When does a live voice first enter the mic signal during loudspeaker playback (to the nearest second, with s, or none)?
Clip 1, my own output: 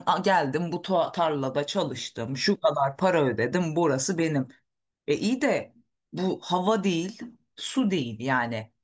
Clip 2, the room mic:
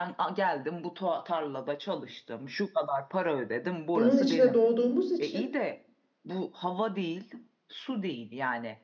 4 s